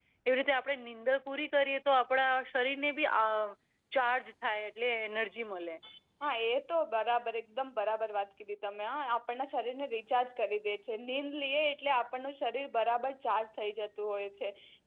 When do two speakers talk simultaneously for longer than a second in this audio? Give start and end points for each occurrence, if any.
none

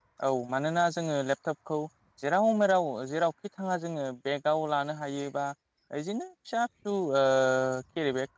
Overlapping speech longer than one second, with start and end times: none

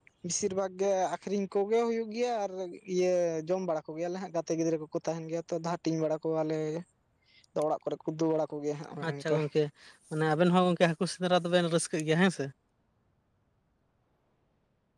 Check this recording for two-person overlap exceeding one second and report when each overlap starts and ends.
none

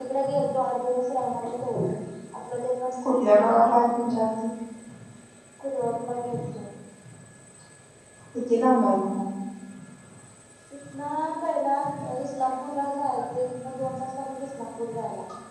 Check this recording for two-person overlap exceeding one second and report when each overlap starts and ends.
3.0-4.2

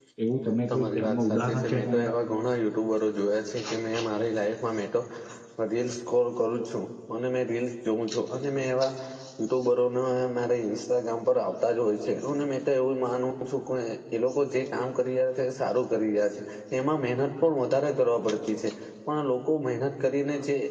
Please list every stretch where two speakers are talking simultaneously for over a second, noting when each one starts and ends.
0.7-2.1

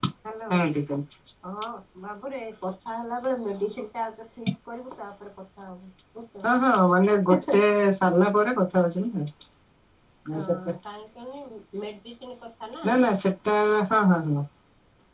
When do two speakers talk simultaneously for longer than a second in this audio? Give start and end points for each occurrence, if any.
none

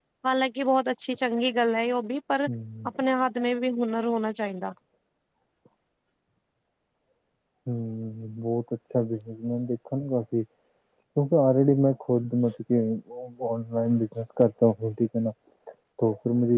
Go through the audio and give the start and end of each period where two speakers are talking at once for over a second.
none

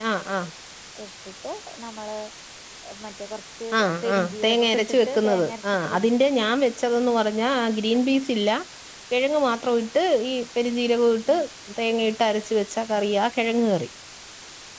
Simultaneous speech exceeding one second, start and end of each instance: 3.8-5.5

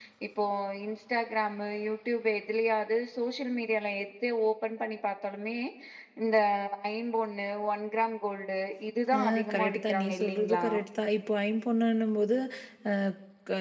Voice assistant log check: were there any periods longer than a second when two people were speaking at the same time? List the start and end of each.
9.2-10.6

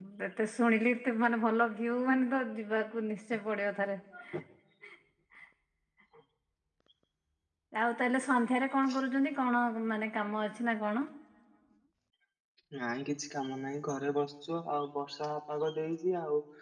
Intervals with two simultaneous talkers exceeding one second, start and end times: none

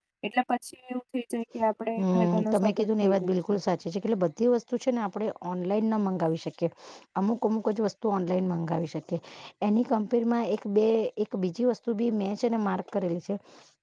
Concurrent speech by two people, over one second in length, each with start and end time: 2.0-3.5

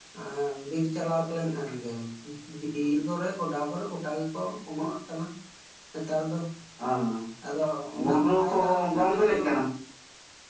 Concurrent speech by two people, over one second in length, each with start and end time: 8.0-9.4

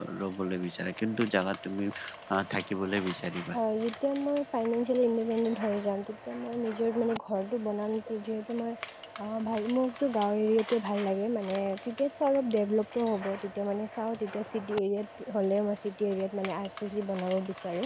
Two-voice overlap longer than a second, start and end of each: none

